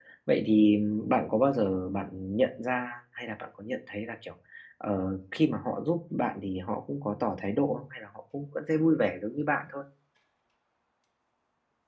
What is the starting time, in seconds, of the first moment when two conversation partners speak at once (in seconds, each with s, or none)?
none